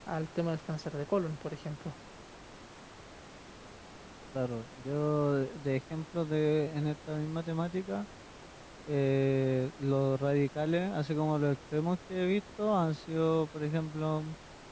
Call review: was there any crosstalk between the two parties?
No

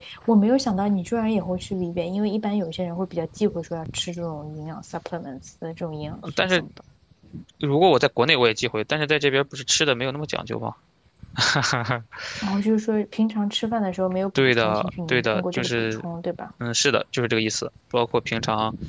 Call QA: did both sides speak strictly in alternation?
No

